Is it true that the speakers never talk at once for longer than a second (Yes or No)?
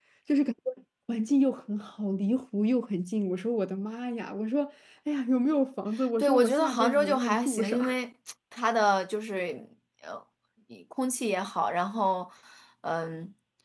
No